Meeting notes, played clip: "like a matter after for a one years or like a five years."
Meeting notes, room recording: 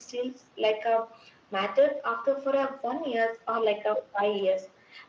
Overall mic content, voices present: echo only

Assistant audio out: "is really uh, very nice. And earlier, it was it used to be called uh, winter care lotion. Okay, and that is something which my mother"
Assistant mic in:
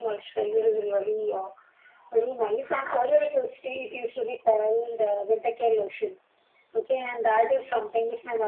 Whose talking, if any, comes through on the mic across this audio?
echo only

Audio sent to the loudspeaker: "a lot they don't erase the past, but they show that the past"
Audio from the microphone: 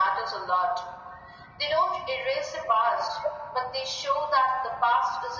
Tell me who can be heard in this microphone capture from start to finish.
echo only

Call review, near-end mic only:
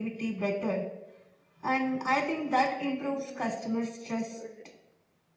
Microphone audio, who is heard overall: both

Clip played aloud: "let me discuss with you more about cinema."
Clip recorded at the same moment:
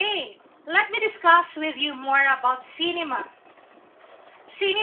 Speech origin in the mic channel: echo only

